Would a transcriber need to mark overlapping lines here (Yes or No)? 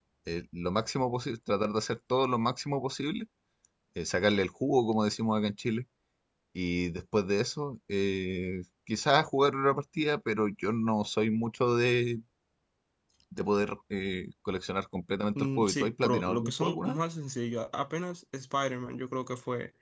Yes